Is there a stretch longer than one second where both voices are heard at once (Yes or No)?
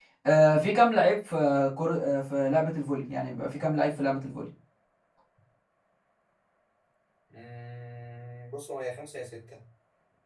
No